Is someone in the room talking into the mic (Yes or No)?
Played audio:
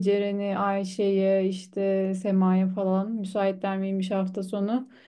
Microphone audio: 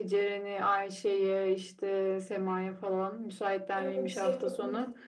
Yes